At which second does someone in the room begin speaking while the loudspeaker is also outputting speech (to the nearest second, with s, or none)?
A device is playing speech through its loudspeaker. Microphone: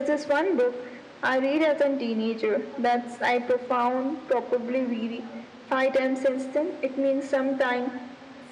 none